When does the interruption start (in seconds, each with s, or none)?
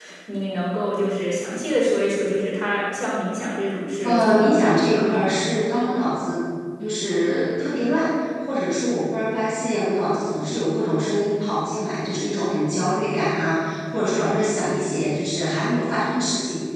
4.0 s